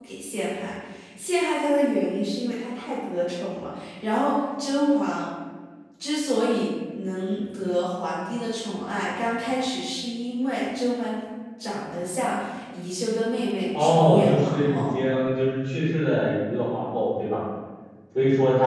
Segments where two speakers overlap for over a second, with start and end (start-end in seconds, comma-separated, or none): 13.7-15.0